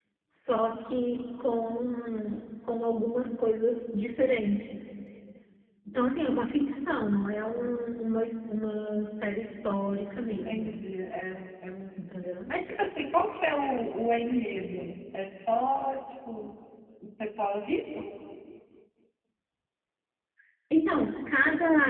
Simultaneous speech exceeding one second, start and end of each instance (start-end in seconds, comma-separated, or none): none